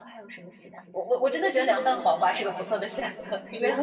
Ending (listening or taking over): taking over